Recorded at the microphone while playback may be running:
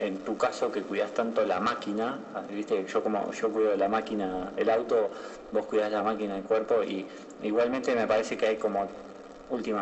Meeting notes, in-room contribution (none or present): none